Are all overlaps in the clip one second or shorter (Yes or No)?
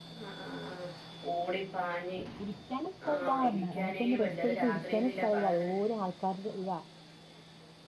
No